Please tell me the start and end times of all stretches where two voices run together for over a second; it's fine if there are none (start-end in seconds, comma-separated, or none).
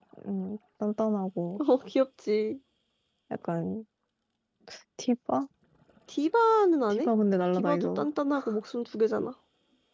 none